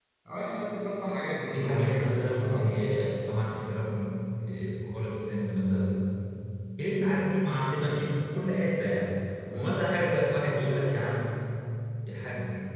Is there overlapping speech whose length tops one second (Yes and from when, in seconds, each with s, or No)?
Yes, from 1.5 s